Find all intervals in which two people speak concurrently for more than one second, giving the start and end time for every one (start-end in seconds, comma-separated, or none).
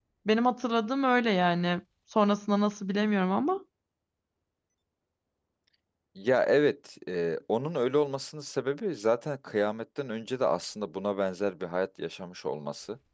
none